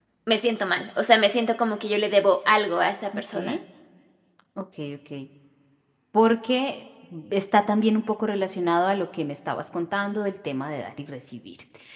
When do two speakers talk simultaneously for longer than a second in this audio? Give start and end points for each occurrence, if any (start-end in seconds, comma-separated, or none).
none